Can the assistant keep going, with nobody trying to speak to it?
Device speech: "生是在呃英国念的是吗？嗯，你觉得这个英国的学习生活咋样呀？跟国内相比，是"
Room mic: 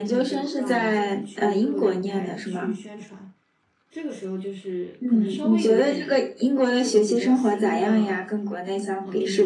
No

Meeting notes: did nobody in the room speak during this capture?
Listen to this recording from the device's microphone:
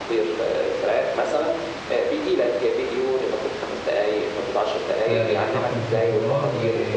No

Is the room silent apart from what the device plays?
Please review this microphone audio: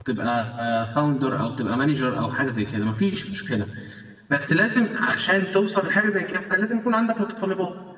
No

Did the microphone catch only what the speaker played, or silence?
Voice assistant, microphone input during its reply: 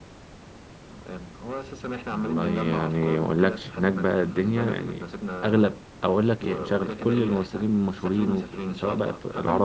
No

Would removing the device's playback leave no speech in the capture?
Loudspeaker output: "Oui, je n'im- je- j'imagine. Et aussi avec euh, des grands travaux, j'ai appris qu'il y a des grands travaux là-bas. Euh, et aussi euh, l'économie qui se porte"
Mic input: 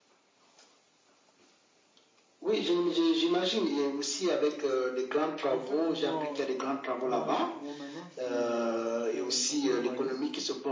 No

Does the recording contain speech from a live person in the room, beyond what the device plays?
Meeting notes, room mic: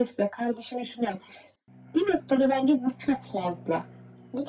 No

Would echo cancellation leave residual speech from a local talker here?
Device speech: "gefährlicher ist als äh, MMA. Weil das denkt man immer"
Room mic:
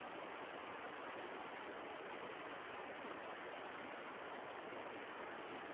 No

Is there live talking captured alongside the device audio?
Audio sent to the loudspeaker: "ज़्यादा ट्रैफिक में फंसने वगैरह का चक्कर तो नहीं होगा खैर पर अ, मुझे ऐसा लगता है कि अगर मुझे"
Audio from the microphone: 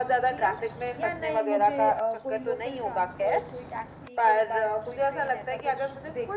Yes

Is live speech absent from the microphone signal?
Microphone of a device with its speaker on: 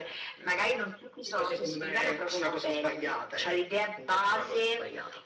Yes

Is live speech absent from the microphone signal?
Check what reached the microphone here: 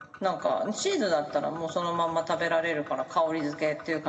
Yes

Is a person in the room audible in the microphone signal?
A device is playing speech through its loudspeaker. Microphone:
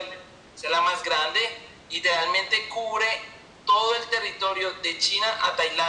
No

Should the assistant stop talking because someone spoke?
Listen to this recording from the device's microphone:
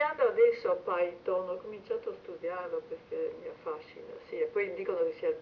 No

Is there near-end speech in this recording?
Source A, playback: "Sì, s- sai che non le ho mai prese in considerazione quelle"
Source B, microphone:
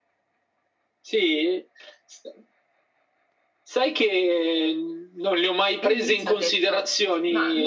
Yes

